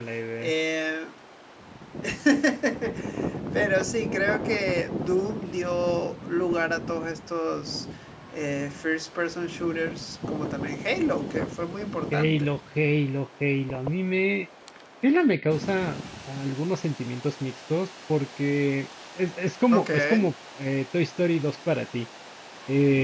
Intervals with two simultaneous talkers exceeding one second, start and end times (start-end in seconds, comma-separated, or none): none